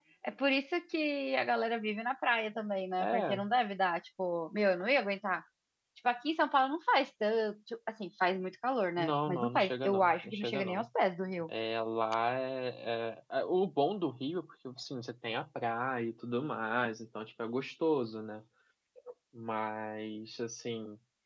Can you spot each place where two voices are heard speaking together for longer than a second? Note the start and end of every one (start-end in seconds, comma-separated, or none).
9.0-10.8